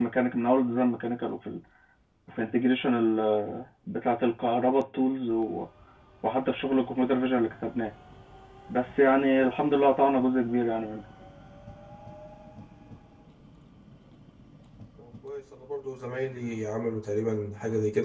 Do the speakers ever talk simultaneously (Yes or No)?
No